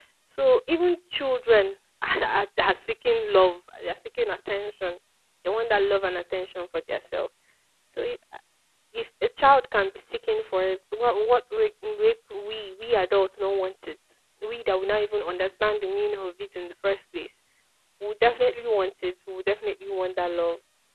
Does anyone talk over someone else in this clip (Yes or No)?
No